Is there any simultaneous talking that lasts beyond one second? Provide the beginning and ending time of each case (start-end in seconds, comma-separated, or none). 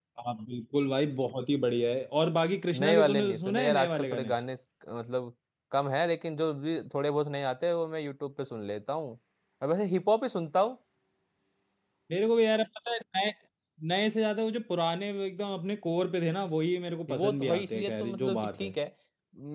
2.7-4.3, 17.1-18.7